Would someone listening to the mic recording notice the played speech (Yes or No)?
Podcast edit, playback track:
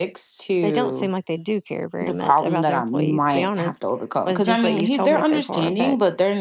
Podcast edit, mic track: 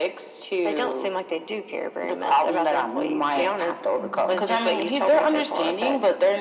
Yes